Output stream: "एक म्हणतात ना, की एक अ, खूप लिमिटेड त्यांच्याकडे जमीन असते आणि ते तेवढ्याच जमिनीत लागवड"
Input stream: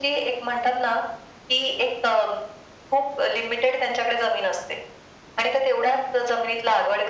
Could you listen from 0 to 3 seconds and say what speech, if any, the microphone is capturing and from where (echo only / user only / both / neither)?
echo only